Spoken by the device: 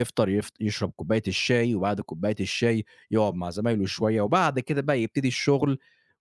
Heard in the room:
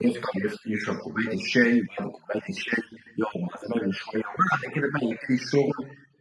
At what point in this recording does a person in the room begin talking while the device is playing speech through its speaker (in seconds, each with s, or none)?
none